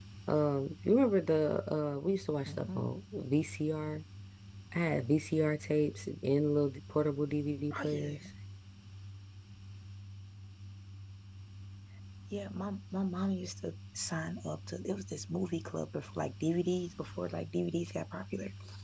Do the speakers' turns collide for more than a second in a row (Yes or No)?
No